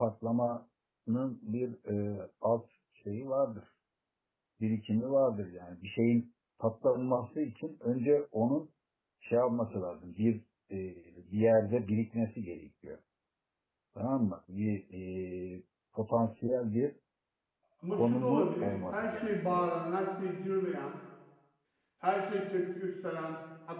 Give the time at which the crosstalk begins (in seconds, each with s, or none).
17.9 s